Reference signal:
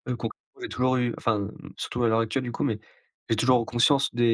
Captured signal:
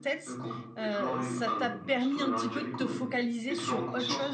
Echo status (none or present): present